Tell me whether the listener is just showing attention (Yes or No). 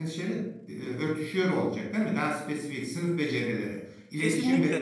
No